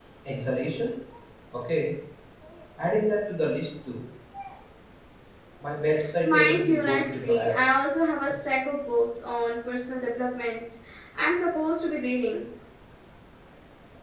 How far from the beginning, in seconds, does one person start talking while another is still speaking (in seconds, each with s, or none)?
6.2 s